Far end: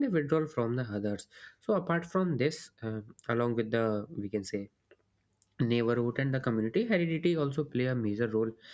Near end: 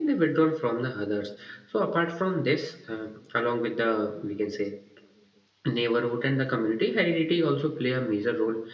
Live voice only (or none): none